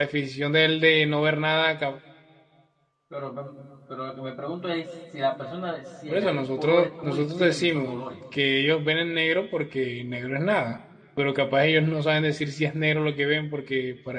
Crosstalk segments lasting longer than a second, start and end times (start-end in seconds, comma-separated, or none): 6.1-8.0